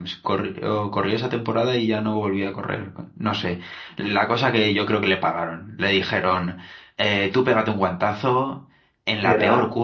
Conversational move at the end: listening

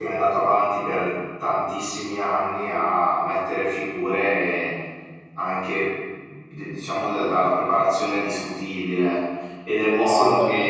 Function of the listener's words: listening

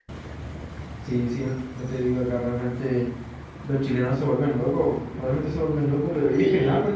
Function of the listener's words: listening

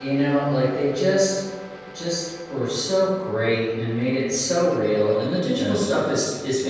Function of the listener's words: listening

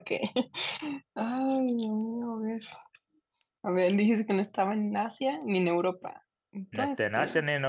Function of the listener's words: taking over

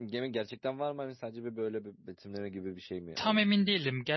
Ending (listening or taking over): taking over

